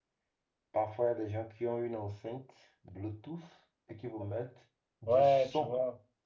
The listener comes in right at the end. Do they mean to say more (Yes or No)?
Yes